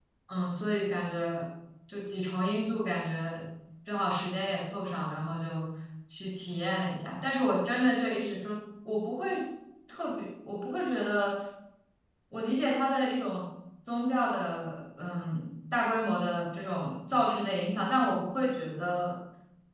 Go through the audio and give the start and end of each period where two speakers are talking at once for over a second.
none

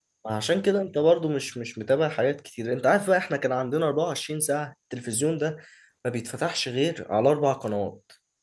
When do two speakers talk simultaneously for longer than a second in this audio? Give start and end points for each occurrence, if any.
none

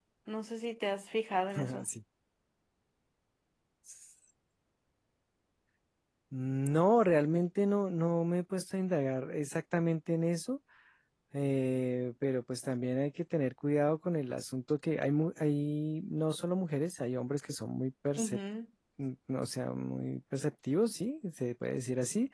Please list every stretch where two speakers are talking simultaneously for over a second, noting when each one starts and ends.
none

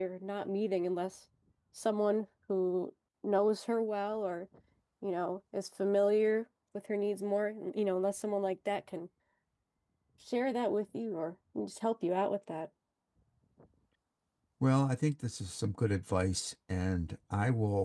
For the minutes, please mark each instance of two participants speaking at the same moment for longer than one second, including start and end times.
none

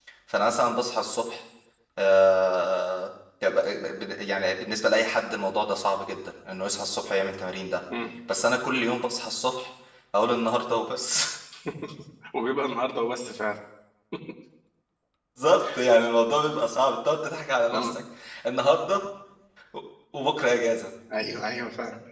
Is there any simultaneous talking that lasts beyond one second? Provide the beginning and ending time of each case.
none

